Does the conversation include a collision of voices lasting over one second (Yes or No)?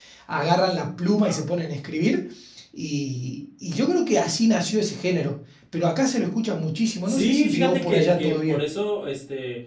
Yes